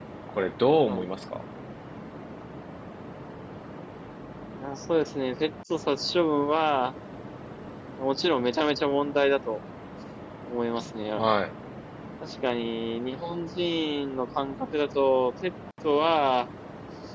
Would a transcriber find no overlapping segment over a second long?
Yes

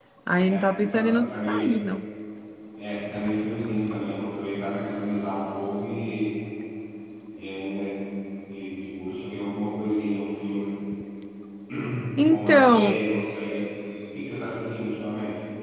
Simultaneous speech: Yes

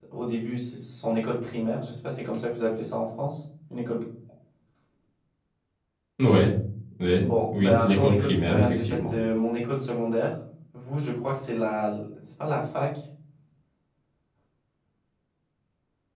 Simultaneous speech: Yes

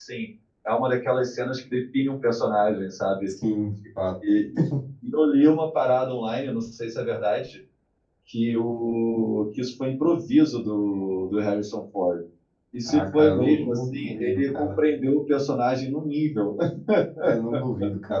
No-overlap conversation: No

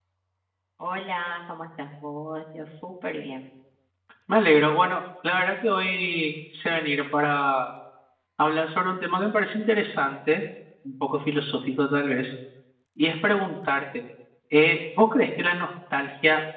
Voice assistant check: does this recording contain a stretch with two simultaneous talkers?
No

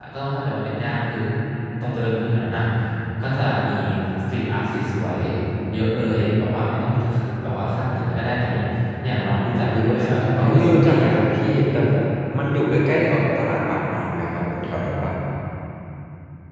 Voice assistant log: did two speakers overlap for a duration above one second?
Yes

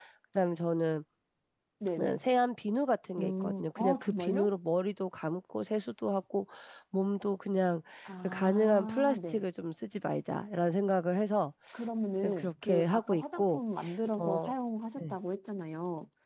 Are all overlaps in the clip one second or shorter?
No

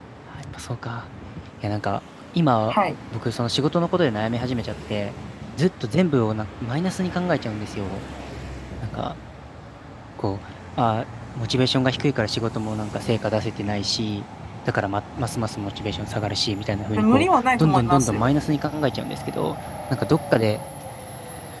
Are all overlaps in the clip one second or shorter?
No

